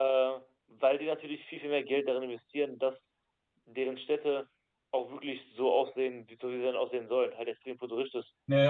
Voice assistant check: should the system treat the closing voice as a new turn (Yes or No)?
Yes